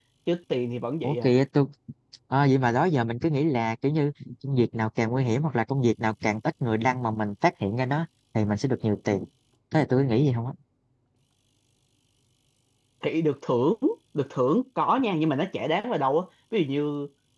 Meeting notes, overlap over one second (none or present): none